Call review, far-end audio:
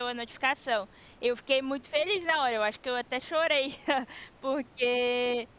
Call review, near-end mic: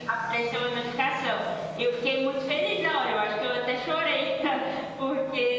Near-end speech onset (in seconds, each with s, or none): none